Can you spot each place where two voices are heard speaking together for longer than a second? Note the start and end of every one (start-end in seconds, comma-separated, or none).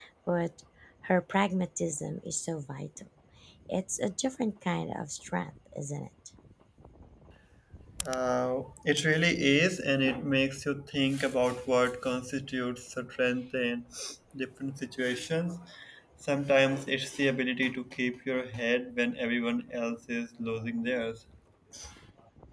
none